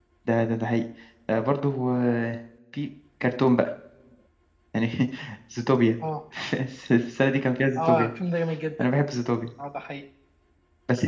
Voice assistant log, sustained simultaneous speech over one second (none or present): none